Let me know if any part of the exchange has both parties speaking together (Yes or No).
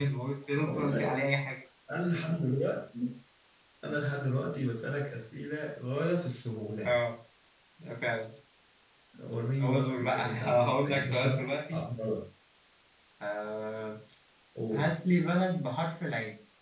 Yes